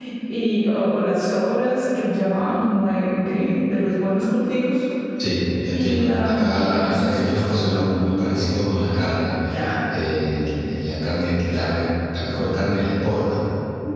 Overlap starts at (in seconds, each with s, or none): 5.7 s